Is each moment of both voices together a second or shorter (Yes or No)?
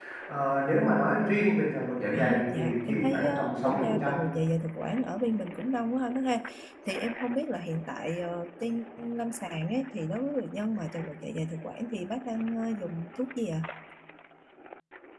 No